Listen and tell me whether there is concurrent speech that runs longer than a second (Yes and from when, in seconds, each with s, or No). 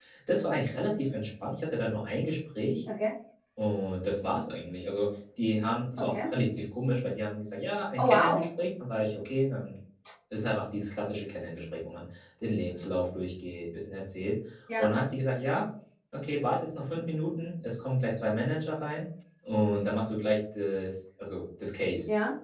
No